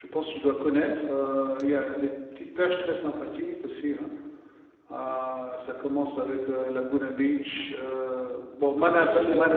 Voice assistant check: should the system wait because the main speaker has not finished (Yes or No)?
No